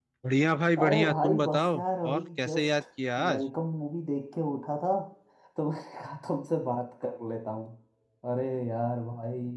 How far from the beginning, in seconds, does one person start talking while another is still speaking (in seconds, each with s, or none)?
0.8 s